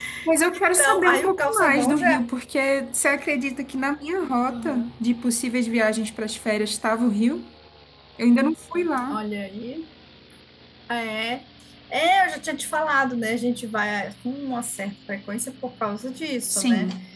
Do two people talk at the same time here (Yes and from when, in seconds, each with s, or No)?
Yes, from 0.5 s